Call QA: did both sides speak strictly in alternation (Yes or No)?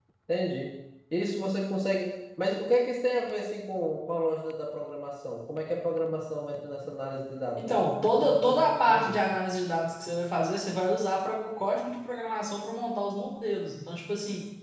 No